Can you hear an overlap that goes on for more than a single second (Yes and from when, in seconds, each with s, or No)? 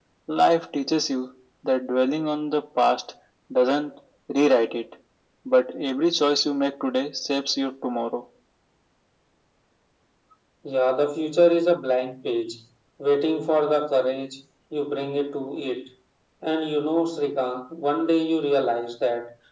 No